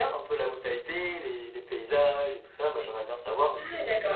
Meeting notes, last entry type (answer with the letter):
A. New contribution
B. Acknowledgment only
A